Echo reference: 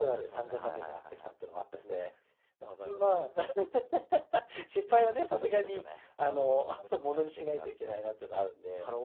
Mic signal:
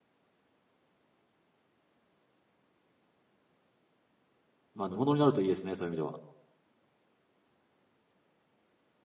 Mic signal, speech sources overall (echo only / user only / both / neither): user only